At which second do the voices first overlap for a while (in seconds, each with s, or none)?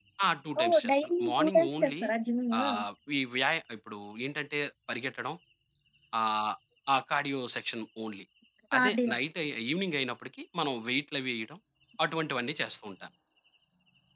0.6 s